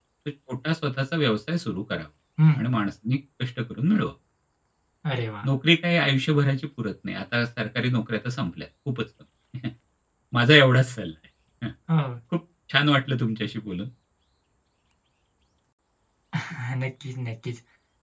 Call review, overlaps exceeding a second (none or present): none